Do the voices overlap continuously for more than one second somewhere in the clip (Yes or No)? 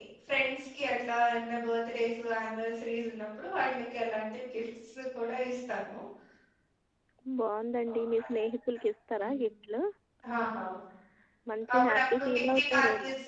Yes